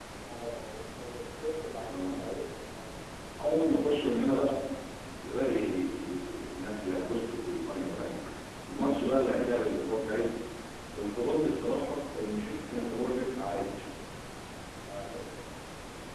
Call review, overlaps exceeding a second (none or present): none